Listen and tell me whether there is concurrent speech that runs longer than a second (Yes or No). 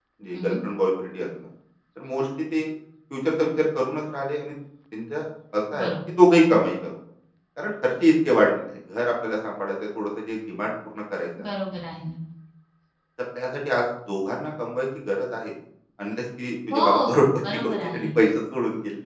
Yes